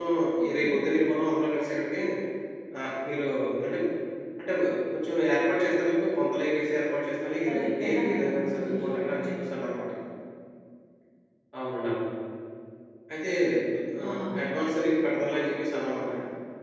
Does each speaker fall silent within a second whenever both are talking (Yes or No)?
No